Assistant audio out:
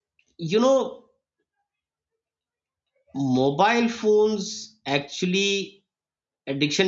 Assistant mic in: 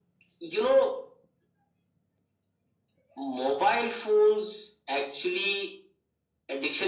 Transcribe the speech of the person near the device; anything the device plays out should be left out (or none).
none